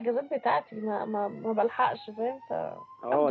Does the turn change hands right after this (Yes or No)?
Yes